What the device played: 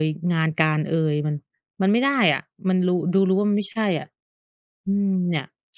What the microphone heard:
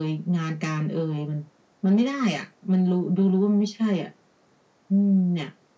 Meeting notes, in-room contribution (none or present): none